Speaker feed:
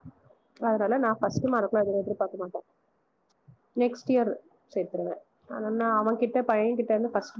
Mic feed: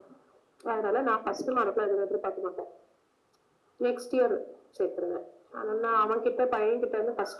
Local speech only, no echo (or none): none